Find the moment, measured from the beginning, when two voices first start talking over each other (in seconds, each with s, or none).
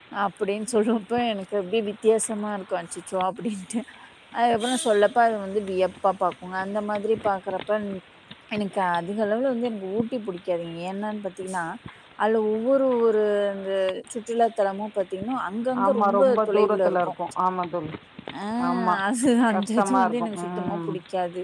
15.8 s